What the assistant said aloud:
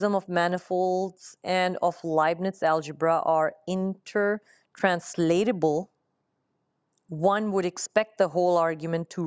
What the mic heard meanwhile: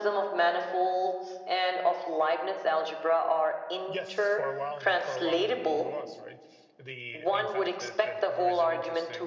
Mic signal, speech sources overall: both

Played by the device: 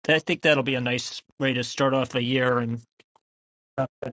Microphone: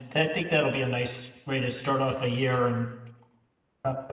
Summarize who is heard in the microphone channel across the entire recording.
echo only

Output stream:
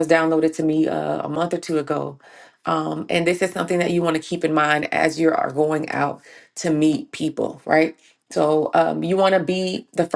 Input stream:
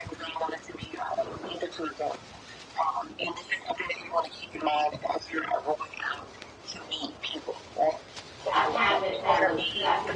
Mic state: both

